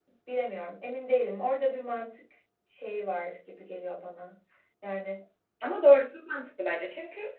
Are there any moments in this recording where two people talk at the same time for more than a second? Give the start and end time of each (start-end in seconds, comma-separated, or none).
none